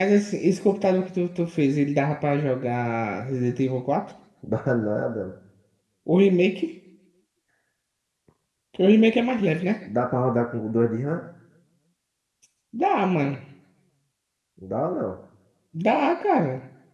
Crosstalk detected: No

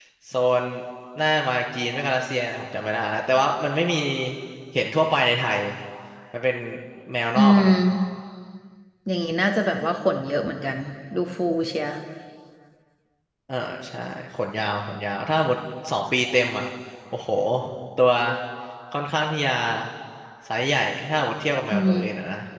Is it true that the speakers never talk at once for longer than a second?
Yes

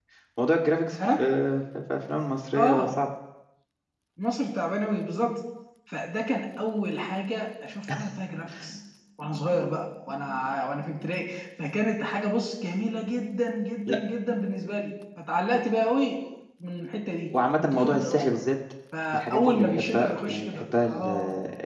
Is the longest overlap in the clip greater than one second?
Yes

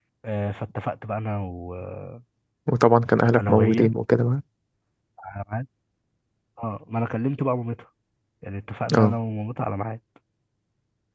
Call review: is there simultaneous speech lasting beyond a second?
No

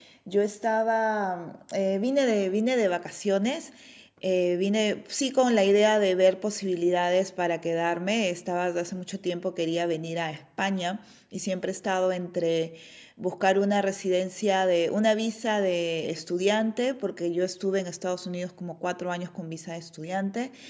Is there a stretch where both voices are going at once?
No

